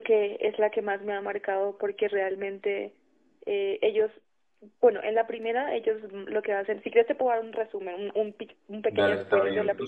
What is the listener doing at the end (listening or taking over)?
taking over